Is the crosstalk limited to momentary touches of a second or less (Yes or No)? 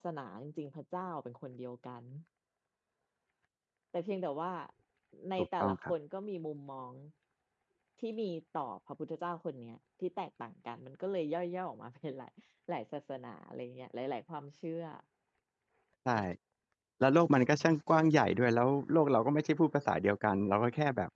Yes